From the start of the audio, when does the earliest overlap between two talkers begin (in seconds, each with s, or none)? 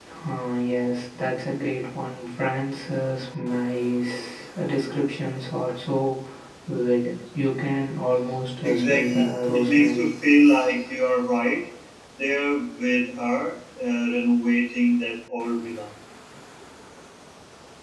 8.6 s